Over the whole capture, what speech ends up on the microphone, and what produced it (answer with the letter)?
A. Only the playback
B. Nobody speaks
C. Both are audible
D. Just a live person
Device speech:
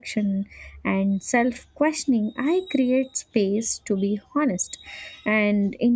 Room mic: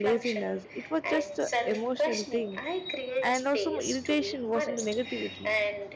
C